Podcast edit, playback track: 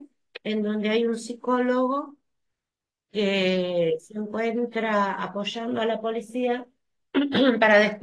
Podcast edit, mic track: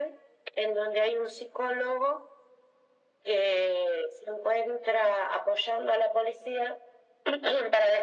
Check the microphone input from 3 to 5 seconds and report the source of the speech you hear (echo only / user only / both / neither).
echo only